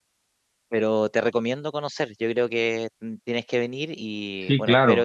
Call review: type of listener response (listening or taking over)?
listening